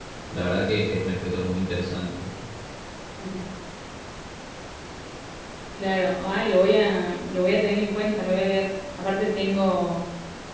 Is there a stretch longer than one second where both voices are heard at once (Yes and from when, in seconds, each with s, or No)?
No